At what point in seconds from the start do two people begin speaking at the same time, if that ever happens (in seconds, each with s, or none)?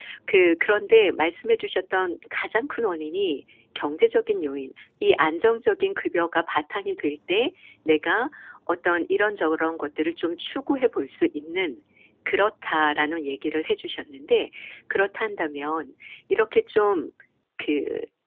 none